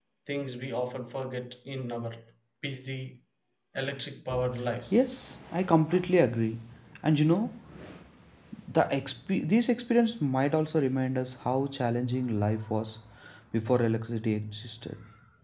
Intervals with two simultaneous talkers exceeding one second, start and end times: none

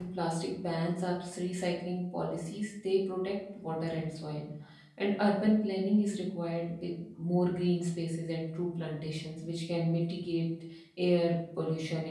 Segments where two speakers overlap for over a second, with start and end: none

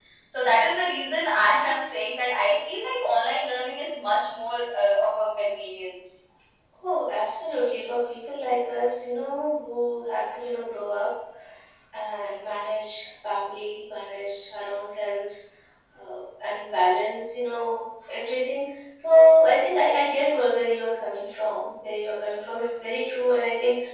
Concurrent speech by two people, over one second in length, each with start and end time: none

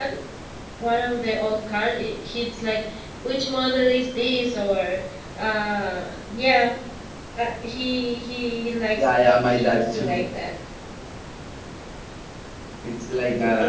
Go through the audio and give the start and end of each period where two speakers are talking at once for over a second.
9.0-10.2

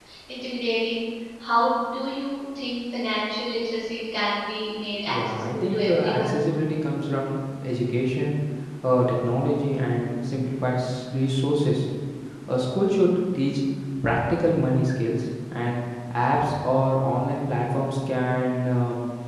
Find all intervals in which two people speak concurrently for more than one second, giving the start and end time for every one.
5.1-6.3

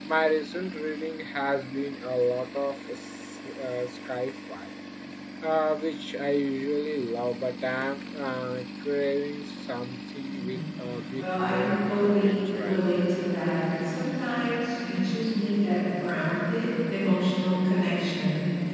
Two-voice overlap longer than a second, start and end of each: 11.2-13.0

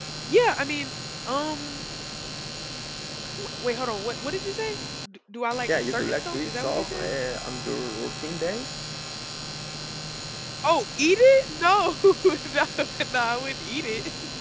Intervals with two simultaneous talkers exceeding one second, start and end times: 5.7-7.1

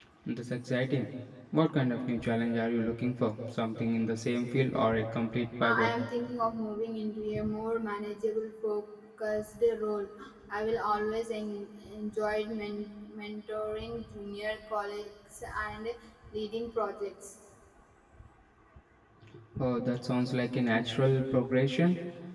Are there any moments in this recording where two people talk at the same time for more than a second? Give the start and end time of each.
none

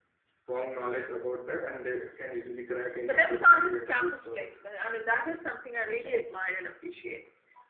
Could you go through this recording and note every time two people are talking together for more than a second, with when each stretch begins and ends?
3.0-4.4

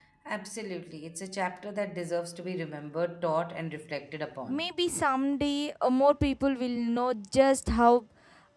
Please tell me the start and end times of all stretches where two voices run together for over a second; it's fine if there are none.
none

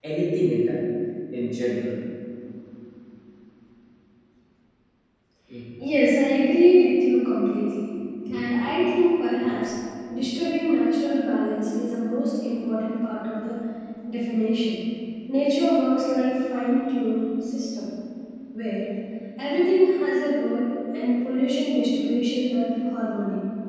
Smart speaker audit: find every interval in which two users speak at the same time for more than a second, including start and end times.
none

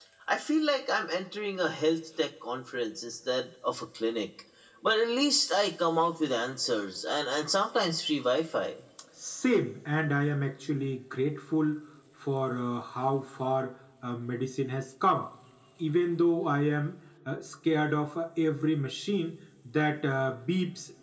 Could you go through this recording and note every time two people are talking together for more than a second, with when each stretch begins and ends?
none

